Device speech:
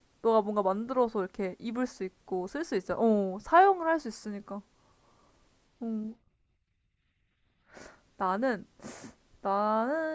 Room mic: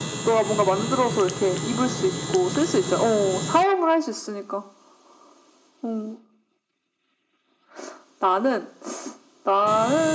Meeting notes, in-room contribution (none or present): none